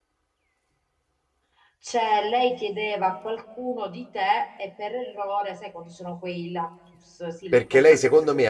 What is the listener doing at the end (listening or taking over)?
taking over